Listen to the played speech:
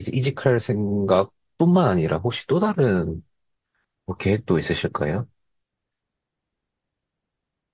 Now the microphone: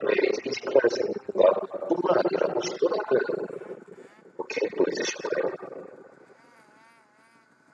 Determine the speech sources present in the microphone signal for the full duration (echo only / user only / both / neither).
echo only